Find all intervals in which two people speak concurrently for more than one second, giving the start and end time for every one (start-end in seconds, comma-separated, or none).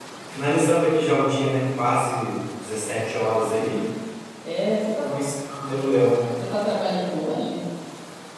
none